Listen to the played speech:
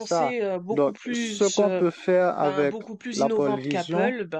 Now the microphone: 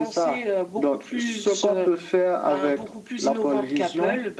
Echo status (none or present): present